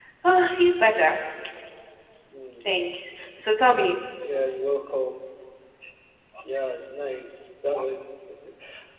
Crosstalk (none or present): none